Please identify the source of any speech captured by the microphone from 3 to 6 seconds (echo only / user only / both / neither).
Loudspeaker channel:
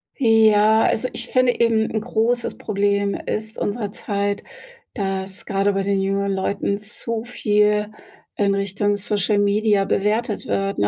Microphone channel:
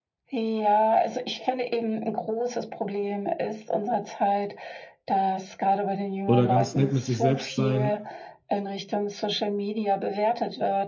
echo only